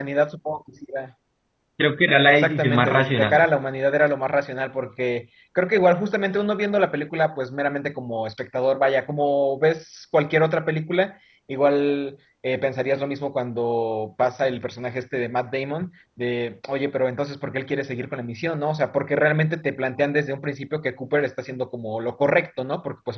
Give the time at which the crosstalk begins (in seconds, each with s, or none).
2.2 s